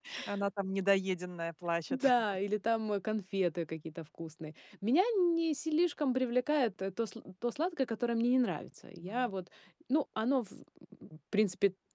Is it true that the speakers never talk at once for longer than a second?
Yes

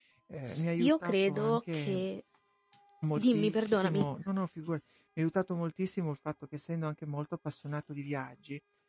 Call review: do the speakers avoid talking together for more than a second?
No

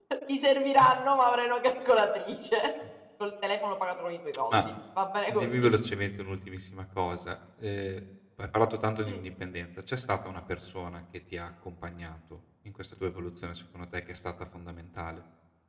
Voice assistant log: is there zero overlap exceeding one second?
Yes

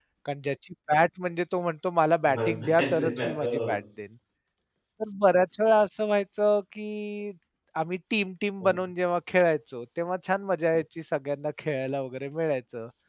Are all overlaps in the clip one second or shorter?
No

